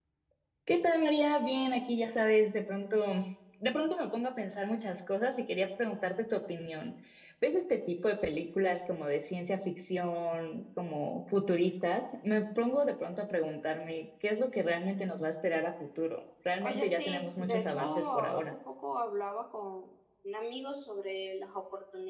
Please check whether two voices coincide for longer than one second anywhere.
Yes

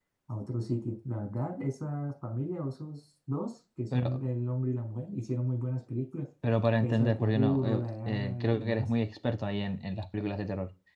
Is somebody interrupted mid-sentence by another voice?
Yes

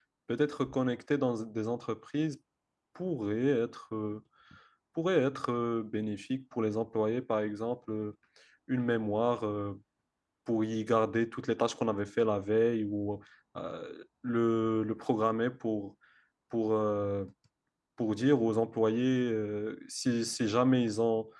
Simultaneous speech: No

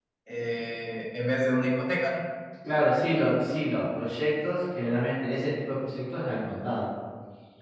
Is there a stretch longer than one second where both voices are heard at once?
No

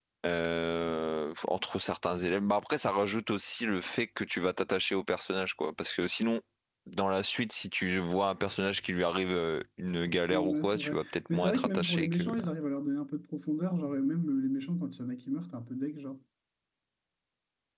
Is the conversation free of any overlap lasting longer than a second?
No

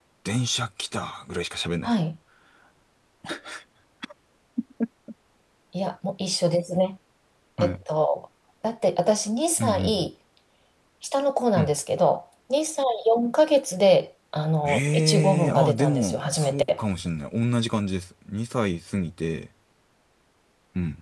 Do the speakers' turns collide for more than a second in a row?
Yes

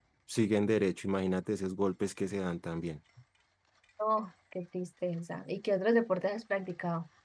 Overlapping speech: No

